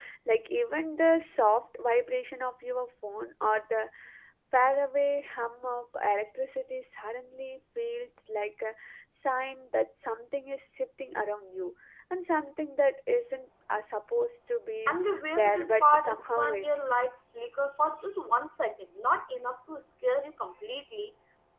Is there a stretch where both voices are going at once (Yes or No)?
Yes